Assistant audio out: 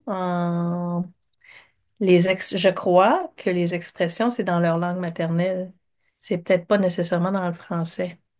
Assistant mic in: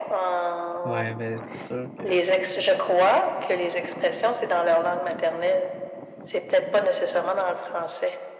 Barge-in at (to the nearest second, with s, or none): 1 s